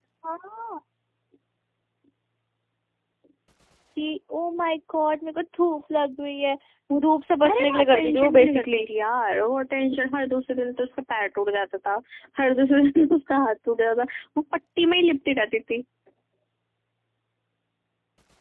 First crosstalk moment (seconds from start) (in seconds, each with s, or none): 7.4 s